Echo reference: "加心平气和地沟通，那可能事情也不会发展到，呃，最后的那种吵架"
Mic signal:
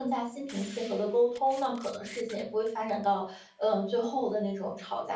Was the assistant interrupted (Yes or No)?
No